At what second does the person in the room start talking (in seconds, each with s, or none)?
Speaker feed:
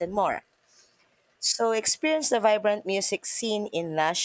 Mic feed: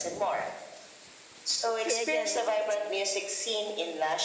1.7 s